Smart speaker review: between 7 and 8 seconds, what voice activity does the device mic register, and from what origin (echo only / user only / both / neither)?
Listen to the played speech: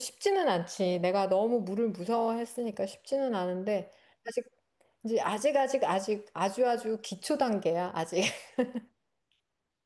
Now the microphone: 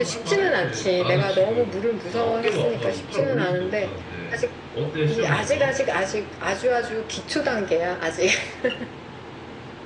echo only